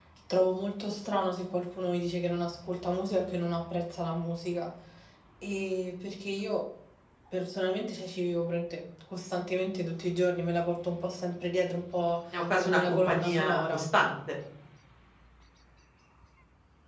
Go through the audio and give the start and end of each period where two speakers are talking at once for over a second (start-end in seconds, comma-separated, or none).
12.6-13.8